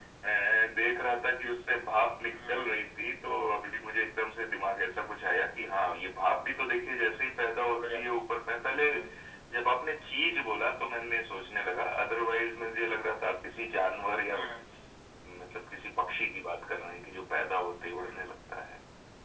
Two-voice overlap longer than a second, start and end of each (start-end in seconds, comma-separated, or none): none